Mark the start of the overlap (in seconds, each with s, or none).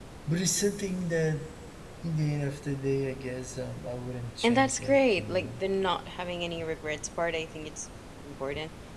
4.4 s